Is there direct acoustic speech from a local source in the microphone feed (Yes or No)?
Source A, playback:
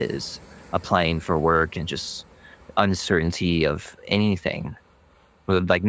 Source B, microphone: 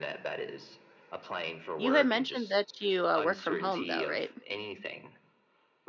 Yes